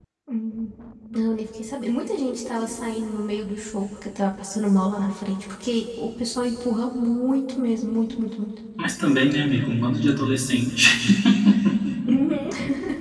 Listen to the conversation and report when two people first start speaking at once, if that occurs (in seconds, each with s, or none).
none